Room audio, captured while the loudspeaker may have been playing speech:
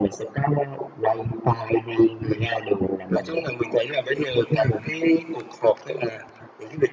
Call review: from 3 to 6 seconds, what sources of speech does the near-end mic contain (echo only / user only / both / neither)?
echo only